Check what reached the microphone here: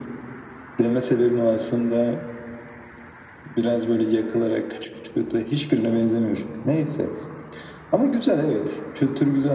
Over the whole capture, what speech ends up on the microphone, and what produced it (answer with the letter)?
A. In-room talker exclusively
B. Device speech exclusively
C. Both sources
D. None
B